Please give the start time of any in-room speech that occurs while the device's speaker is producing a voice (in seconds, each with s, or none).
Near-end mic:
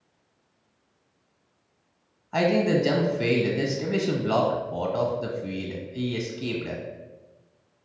2.3 s